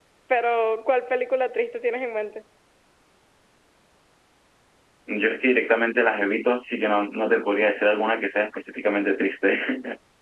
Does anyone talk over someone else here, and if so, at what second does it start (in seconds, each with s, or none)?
none